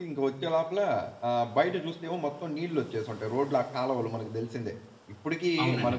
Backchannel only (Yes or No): Yes